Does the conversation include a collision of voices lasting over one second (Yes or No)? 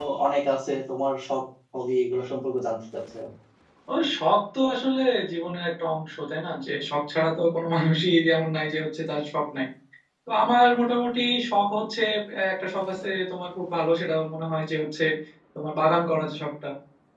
No